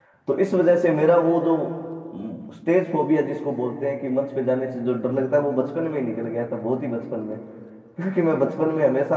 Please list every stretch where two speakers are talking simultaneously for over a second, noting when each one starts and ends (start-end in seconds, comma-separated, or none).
none